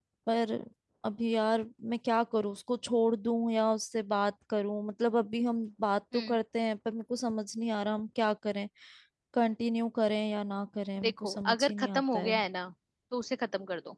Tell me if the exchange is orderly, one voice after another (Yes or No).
No